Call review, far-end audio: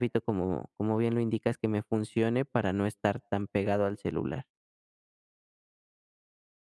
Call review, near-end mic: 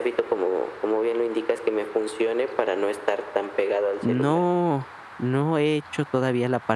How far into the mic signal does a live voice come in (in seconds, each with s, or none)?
4.0 s